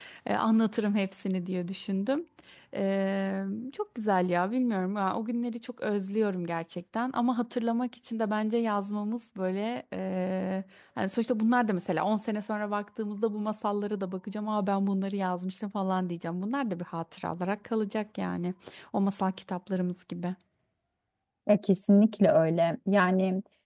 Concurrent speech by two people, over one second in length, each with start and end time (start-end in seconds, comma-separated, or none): none